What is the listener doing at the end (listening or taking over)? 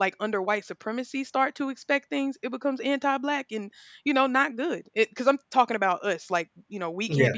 listening